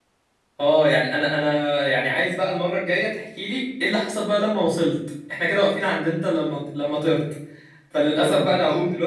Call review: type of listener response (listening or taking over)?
listening